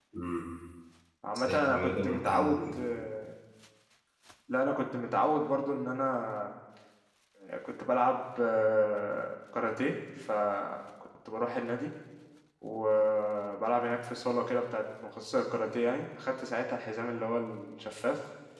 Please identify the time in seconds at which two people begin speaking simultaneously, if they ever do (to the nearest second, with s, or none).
1 s